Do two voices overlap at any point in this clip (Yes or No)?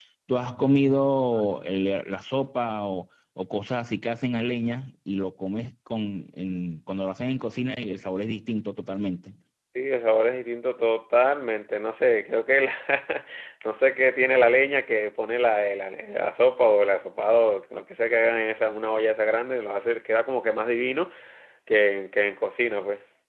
No